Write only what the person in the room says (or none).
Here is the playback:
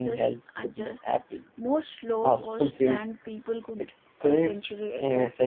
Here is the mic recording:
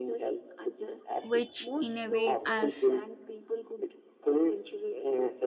which in a way has